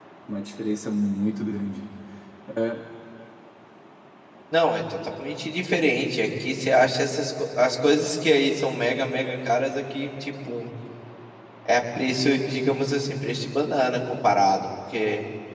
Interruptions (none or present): none